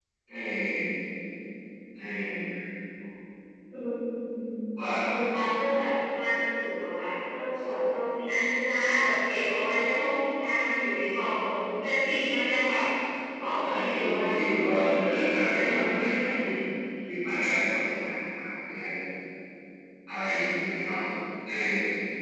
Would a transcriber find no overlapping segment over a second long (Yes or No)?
No